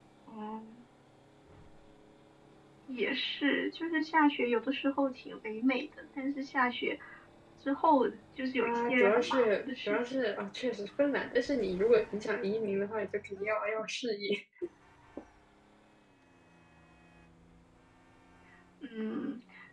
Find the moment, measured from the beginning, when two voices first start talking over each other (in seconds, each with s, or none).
8.6 s